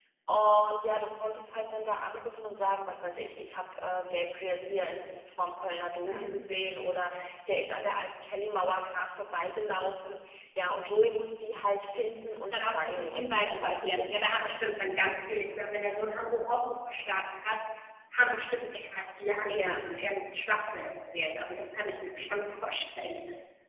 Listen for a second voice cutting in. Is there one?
Yes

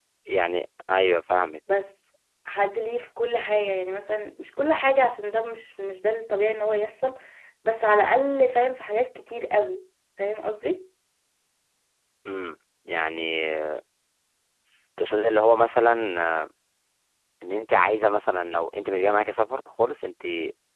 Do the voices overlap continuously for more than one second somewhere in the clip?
No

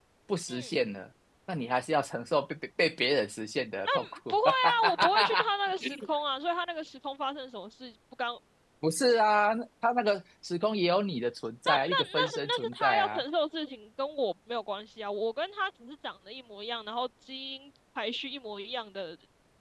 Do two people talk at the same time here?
Yes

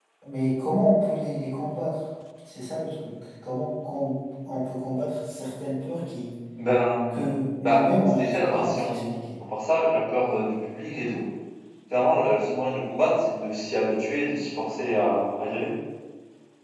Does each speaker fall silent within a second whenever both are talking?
No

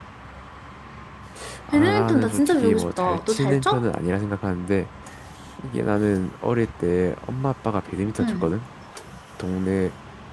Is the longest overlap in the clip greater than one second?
Yes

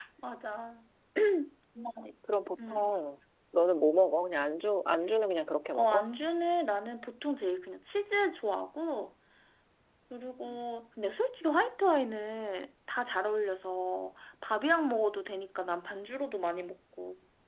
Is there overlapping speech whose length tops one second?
No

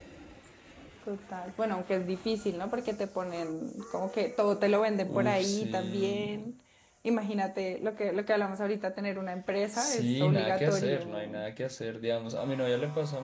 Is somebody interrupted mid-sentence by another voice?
Yes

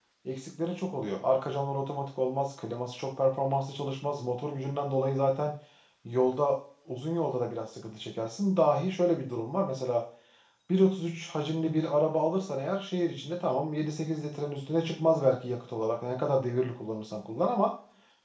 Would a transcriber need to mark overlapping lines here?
No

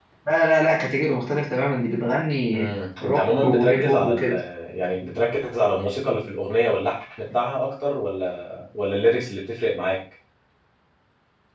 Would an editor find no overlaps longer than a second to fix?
No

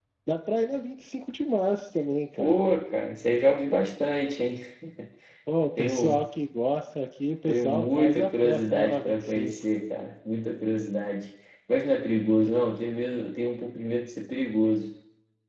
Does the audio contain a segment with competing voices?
Yes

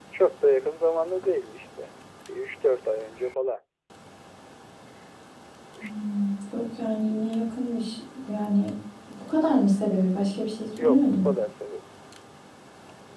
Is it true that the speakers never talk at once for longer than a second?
Yes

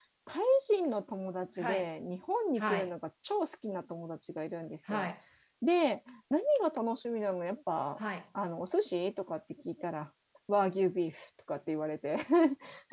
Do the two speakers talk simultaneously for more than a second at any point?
No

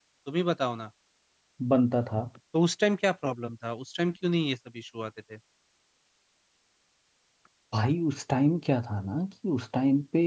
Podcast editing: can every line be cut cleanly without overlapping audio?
Yes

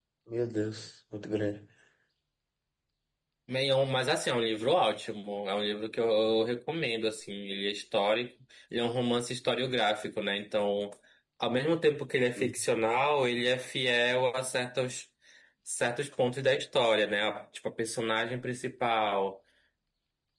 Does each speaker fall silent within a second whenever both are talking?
Yes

